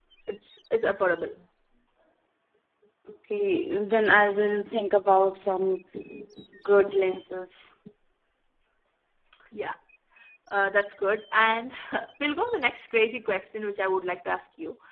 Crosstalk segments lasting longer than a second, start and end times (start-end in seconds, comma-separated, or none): none